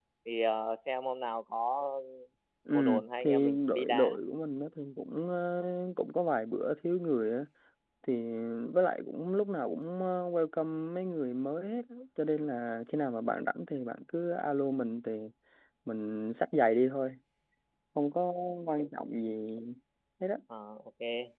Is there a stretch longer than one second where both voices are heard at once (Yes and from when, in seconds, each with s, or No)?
Yes, from 2.7 s